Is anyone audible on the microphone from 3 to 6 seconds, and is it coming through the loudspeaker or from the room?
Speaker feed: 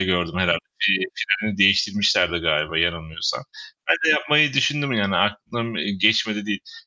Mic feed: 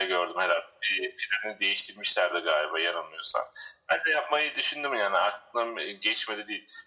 echo only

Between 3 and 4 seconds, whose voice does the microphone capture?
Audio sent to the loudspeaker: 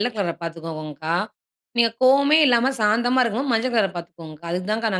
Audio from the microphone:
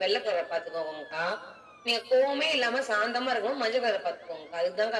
echo only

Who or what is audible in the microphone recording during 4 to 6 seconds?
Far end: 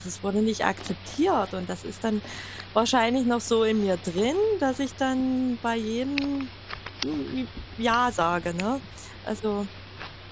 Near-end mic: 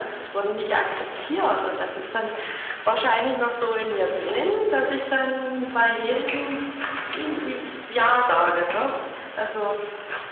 echo only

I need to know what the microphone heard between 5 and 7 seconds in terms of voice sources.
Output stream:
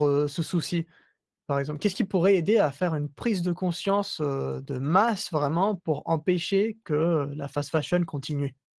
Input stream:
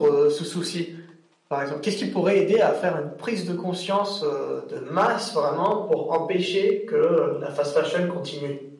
echo only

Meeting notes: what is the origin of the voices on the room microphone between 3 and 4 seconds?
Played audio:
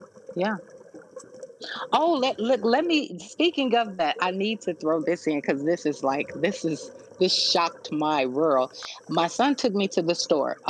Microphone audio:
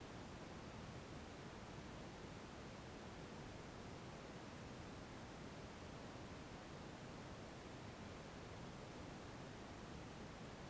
neither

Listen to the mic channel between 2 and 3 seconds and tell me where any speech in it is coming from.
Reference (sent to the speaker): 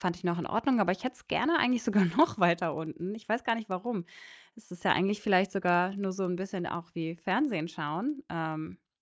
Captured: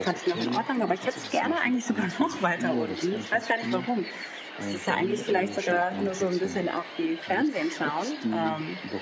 both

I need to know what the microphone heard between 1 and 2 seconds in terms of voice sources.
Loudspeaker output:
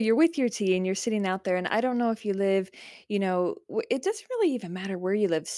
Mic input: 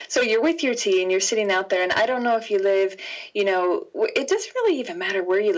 echo only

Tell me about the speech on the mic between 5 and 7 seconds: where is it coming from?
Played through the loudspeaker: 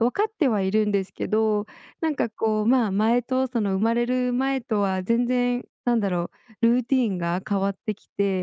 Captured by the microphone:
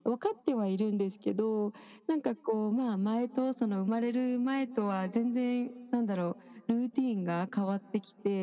echo only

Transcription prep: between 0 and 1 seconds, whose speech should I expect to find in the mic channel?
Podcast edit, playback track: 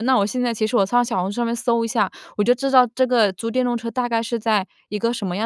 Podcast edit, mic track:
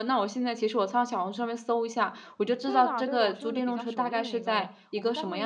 echo only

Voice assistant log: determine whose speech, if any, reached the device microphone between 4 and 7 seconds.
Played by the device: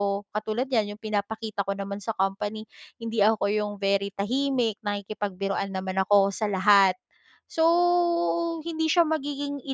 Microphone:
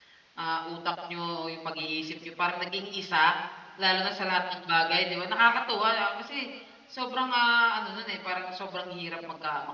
user only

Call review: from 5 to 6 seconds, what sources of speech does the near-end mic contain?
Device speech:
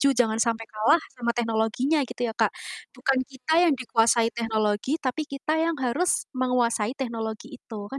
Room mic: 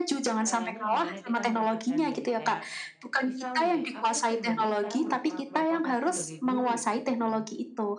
both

